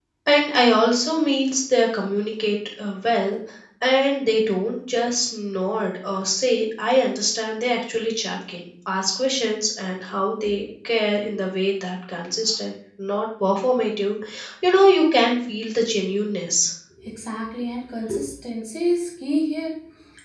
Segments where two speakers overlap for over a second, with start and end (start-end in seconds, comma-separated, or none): none